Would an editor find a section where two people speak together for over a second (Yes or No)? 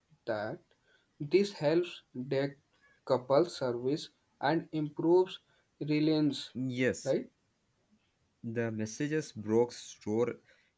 No